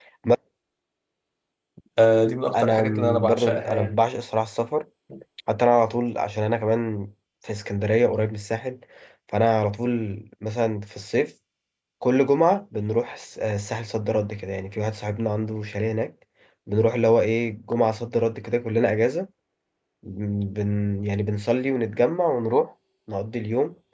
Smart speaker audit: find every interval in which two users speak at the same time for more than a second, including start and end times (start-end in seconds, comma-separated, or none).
2.5-4.0